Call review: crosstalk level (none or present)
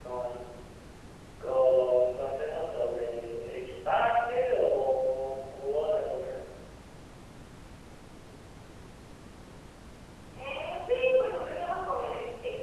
none